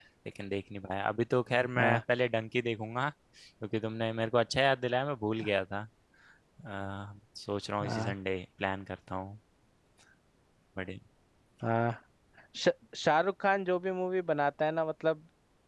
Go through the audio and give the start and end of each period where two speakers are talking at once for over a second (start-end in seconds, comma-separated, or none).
none